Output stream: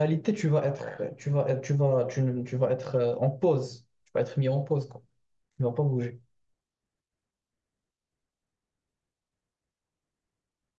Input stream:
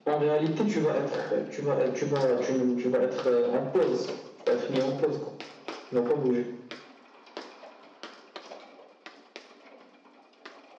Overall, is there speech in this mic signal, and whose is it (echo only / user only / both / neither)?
echo only